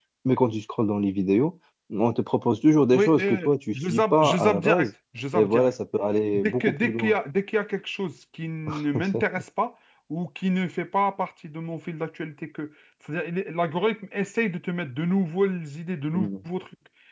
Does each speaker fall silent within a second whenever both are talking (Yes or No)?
No